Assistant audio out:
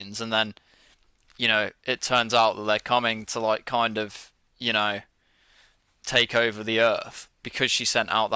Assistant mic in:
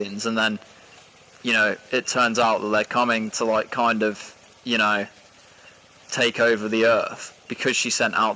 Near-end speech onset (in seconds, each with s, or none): none